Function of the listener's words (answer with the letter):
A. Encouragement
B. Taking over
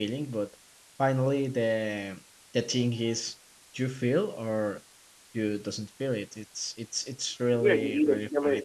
B